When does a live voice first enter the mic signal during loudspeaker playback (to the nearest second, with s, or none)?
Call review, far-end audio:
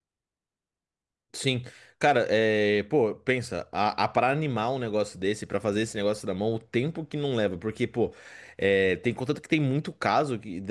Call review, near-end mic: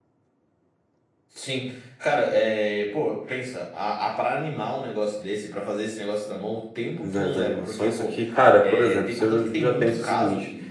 7 s